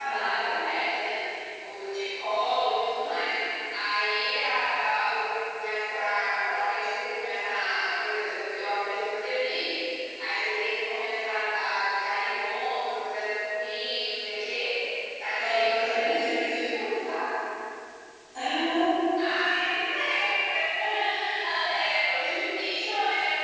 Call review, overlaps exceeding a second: present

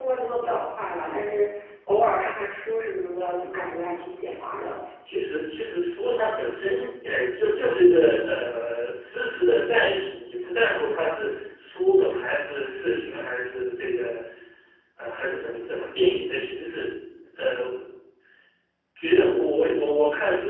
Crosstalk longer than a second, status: none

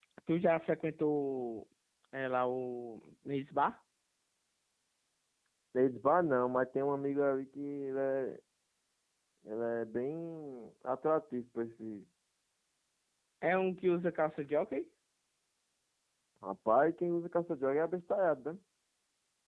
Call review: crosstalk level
none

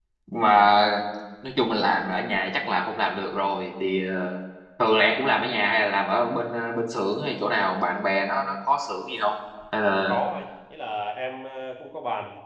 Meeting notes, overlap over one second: none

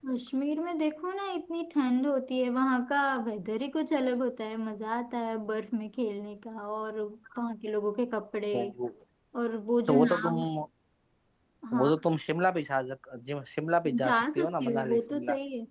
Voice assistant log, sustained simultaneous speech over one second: present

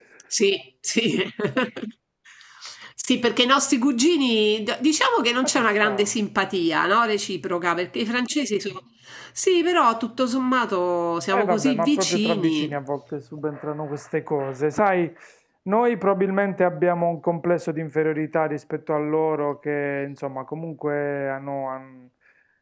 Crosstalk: present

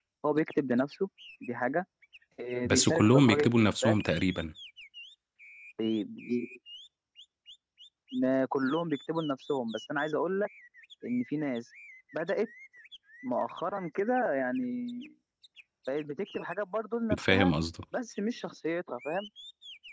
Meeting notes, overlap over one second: present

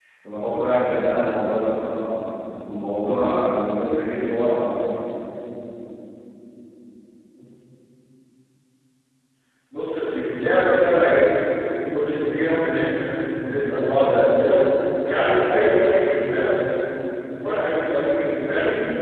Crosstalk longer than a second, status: none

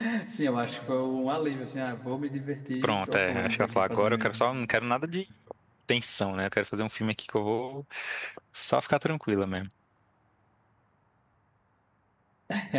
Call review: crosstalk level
present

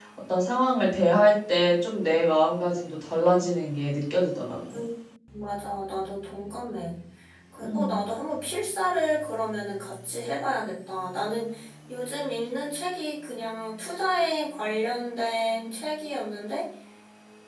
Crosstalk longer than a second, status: none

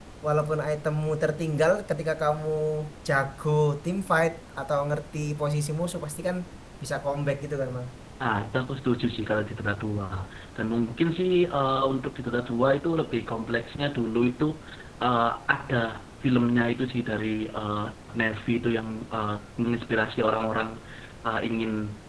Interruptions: none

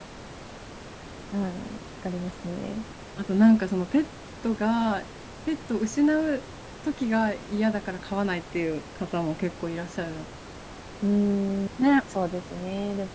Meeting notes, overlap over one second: none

